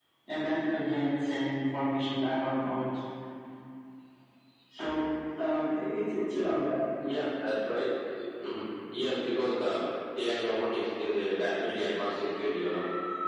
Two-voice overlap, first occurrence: none

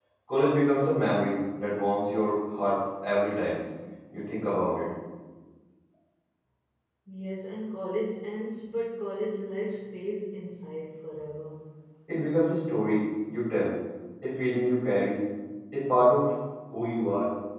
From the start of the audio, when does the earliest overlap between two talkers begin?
none

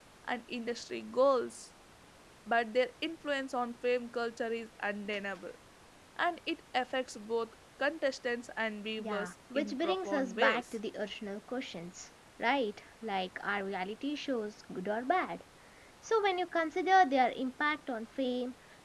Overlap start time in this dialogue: 9 s

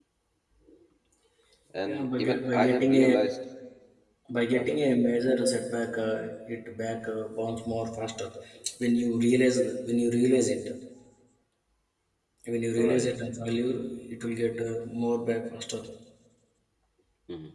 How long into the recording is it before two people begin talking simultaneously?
2 s

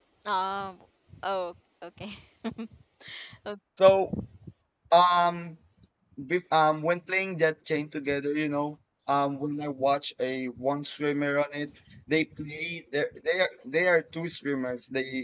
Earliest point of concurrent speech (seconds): none

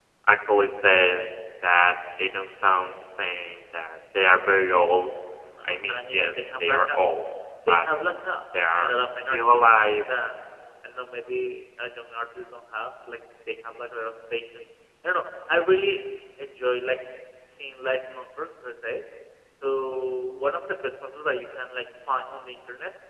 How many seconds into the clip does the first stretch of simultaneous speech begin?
6 s

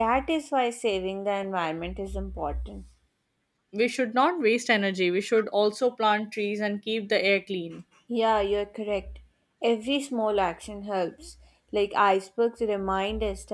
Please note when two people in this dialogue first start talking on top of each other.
none

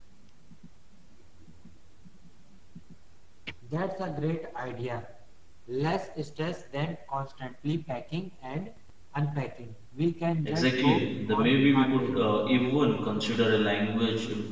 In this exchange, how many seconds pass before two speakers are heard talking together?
10 s

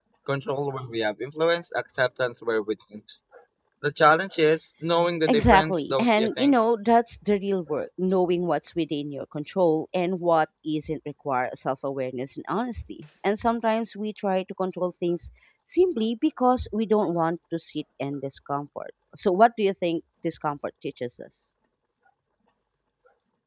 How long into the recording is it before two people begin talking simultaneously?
5 s

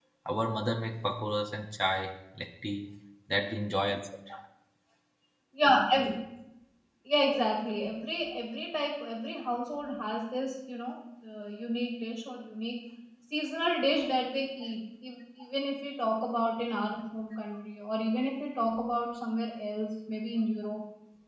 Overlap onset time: none

